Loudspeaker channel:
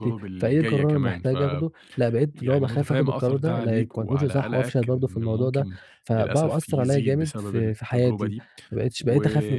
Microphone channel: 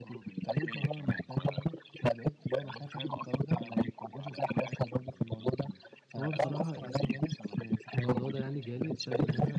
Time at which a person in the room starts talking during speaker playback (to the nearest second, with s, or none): 6 s